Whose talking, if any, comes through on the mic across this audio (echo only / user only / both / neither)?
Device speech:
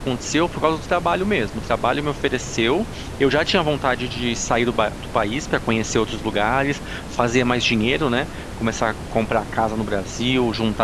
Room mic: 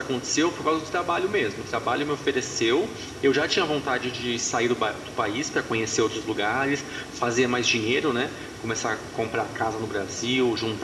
echo only